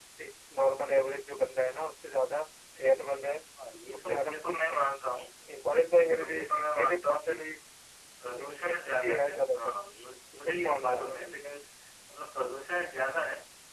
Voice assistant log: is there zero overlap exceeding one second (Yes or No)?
No